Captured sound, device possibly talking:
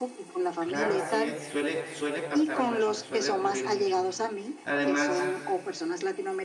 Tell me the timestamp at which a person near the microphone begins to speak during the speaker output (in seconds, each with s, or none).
0.6 s